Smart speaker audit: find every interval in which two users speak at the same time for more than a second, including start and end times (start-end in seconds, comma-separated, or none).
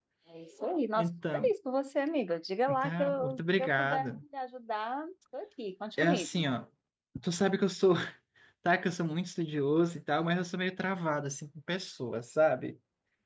2.8-4.1